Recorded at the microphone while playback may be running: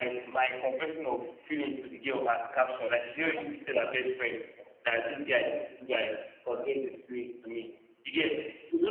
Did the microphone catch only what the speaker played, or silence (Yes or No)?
Yes